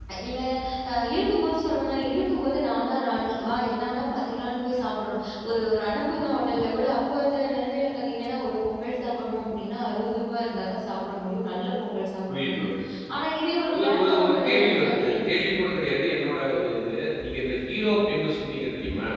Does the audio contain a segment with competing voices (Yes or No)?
Yes